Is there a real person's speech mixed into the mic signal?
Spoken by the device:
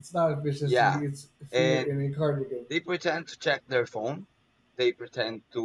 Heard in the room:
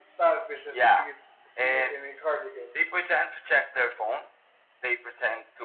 No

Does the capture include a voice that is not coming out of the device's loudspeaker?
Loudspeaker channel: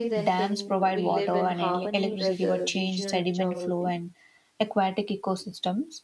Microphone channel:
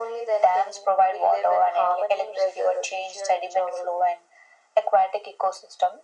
No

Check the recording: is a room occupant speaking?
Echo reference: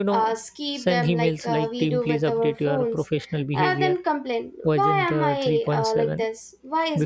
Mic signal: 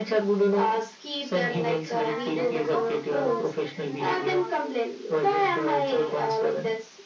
Yes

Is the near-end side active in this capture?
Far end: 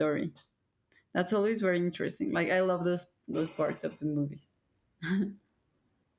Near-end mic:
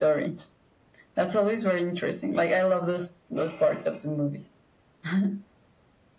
No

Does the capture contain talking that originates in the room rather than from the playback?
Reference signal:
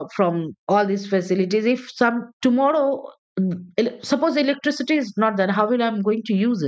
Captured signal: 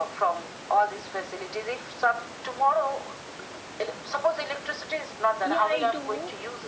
Yes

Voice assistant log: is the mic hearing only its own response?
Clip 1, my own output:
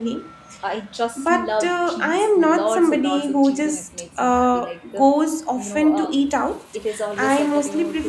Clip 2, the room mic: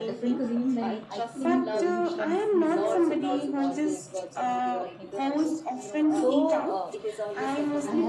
No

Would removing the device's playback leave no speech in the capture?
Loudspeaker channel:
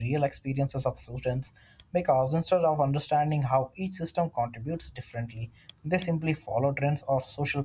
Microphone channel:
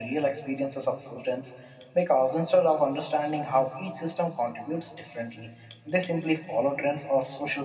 Yes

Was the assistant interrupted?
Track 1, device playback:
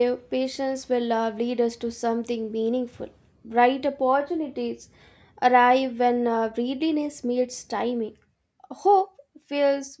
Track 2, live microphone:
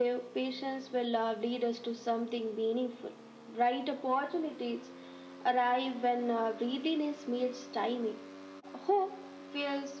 No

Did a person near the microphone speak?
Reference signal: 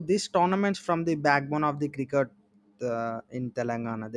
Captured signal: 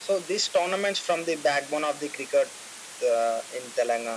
No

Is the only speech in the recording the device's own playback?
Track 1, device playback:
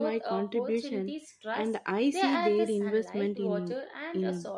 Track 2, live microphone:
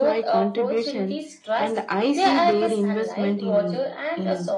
Yes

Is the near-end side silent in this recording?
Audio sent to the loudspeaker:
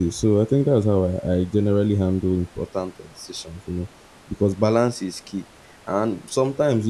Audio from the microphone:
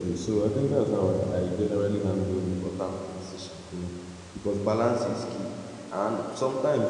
Yes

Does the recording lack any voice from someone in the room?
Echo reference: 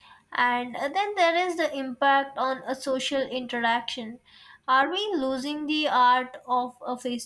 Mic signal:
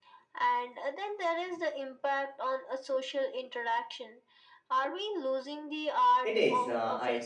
No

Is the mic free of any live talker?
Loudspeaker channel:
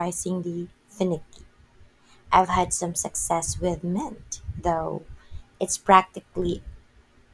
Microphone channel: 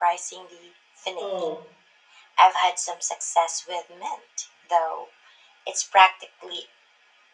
No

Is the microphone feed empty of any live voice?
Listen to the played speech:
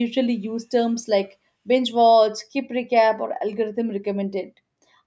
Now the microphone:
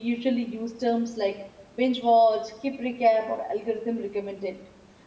Yes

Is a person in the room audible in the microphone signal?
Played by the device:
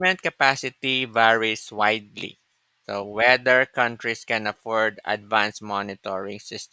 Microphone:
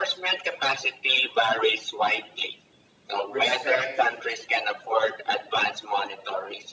Yes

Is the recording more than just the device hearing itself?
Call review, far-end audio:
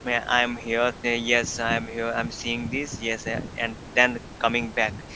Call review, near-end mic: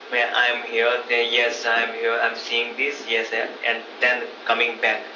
No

